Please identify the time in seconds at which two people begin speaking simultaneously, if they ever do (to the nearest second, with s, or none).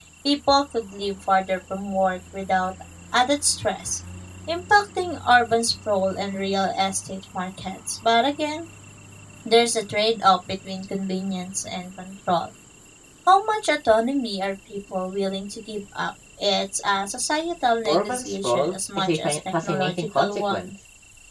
18 s